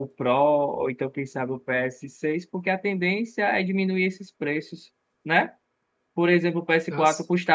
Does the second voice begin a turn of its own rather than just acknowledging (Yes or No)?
No